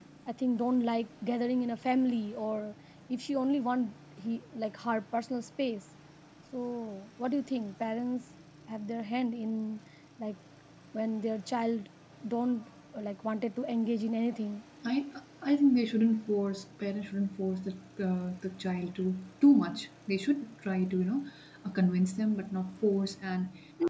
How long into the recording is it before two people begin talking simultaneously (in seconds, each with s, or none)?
none